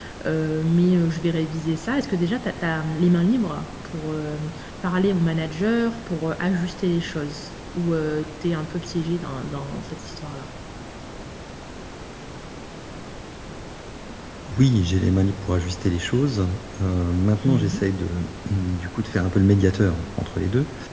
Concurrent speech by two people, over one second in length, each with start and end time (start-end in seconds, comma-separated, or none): none